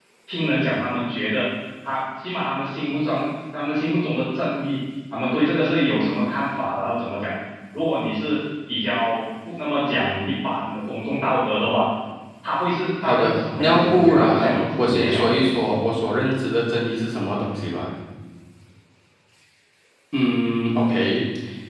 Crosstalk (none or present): present